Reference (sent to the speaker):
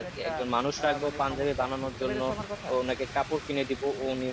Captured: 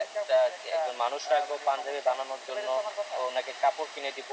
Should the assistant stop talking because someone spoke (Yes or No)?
No